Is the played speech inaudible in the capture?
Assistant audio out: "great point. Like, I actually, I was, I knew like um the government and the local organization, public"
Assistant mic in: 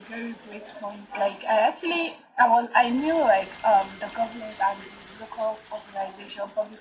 No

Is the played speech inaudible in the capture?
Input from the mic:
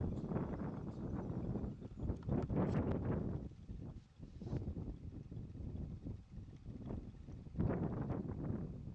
Yes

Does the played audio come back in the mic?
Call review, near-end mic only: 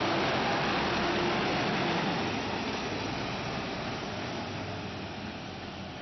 No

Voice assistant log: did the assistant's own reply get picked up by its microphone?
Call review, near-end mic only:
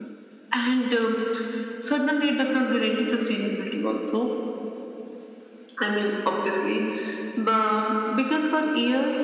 Yes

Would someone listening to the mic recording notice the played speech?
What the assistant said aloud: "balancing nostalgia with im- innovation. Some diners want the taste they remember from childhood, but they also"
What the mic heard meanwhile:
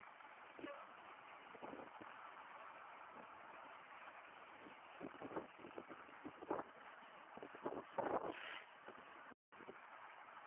No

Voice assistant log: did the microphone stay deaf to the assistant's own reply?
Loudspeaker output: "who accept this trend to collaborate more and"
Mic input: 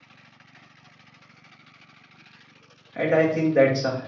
Yes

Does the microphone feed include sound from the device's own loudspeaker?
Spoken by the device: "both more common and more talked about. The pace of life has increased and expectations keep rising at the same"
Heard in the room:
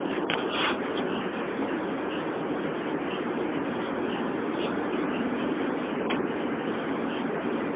No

